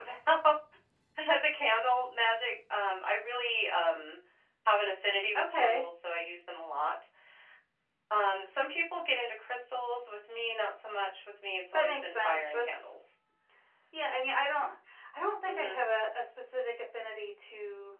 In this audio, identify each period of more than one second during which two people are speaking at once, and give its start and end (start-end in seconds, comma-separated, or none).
11.7-12.9